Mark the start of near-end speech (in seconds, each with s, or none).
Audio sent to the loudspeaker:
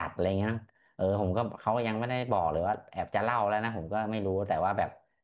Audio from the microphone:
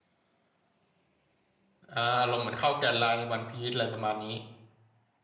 1.9 s